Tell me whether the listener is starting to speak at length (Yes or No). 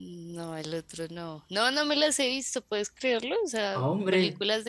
No